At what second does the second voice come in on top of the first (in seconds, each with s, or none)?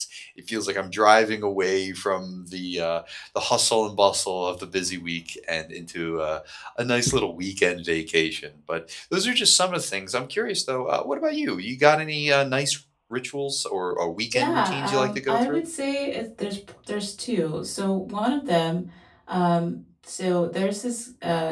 14.3 s